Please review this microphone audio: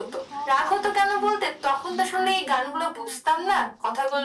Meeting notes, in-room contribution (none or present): present